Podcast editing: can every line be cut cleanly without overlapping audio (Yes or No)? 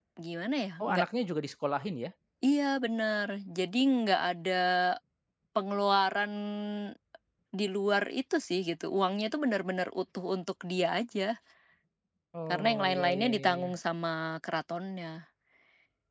No